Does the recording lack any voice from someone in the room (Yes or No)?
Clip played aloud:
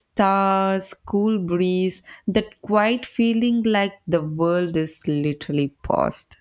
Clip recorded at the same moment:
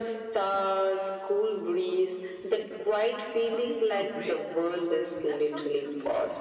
No